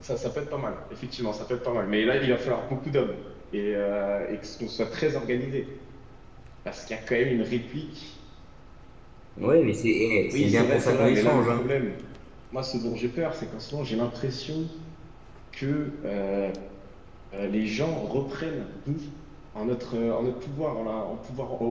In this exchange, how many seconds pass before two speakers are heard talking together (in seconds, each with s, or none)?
10.3 s